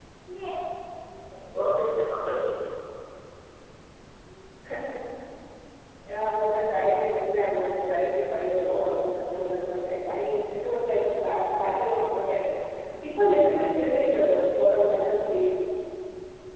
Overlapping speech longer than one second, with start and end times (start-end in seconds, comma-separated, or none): none